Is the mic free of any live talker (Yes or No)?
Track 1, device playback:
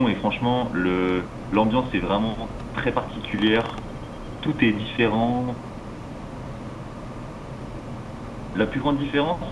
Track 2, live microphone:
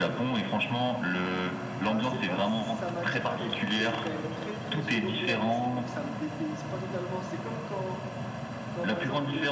No